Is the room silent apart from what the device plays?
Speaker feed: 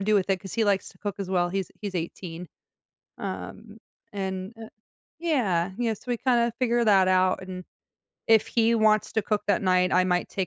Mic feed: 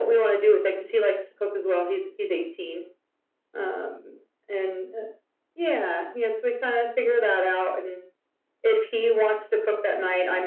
Yes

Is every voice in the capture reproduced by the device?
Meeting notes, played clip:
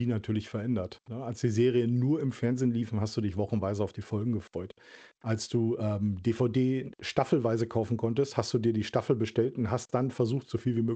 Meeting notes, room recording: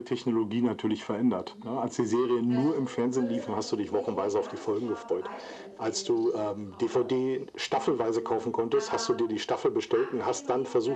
No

